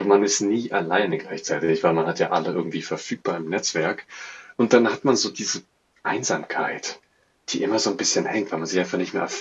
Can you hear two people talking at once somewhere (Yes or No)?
No